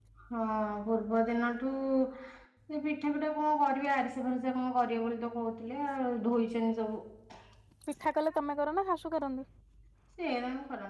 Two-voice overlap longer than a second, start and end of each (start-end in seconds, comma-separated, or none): none